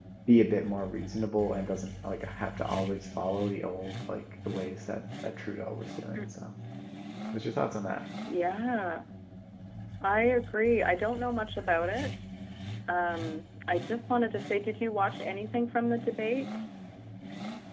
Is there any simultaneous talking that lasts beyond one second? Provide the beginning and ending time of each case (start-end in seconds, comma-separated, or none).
none